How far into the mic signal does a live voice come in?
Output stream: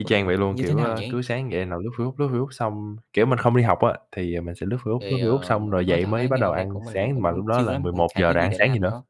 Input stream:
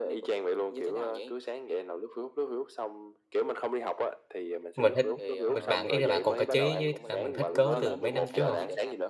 4.7 s

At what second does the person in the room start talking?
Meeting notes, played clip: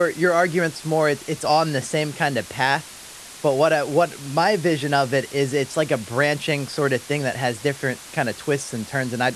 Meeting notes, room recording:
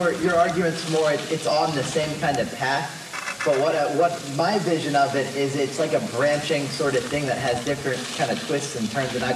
none

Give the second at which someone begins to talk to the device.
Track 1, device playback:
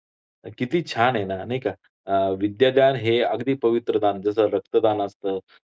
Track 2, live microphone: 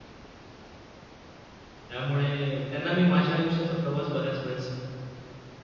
1.9 s

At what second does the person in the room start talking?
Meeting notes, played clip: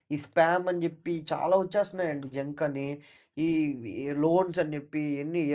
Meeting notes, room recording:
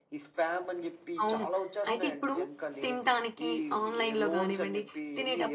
1.2 s

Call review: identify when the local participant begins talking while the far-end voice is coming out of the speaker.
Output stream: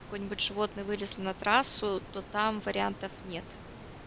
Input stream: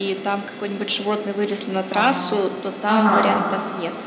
1.9 s

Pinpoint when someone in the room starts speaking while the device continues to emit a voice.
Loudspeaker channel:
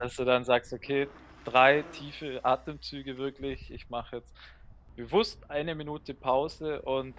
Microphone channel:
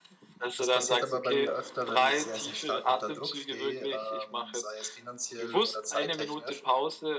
0.6 s

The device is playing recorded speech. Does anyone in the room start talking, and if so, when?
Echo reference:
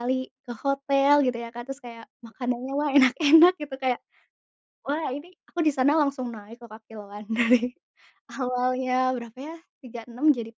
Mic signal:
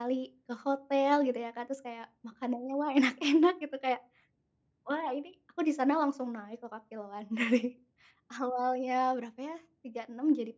none

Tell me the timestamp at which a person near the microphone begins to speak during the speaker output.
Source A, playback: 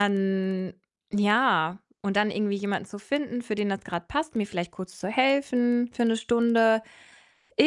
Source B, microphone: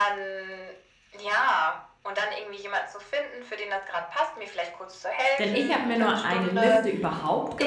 5.4 s

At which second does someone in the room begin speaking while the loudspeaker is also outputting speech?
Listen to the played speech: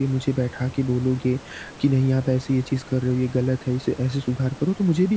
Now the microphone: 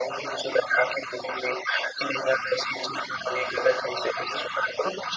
none

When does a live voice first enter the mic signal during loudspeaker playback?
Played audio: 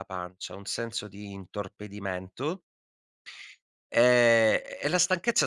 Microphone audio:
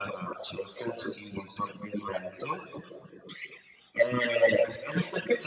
none

